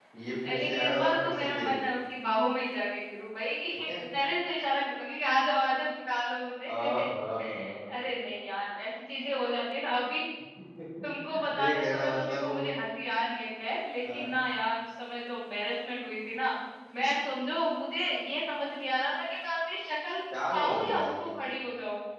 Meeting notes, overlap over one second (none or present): present